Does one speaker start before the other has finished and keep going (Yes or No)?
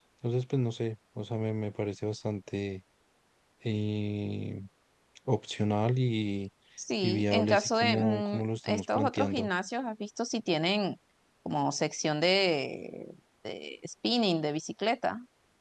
Yes